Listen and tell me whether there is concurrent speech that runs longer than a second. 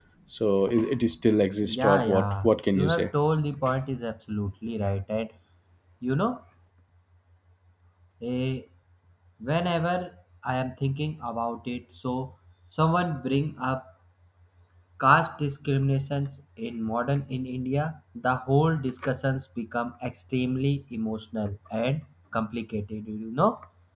Yes, from 1.6 s

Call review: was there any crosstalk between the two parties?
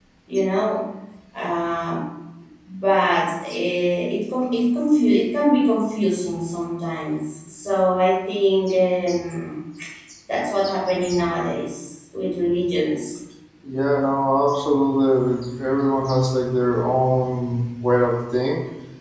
No

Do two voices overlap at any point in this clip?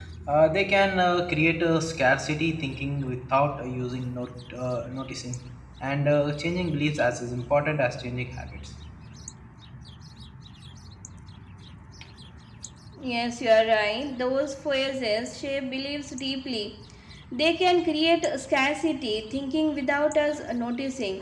No

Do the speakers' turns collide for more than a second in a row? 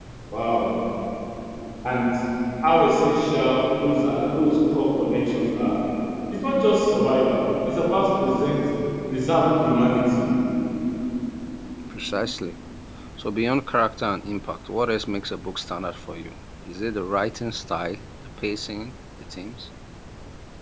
No

